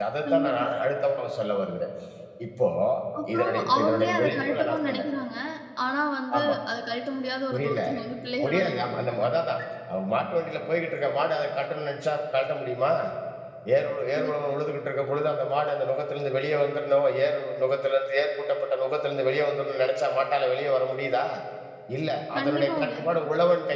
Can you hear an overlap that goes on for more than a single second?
Yes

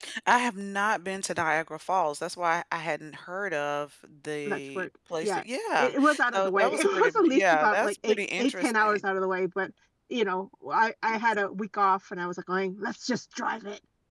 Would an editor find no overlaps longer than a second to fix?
No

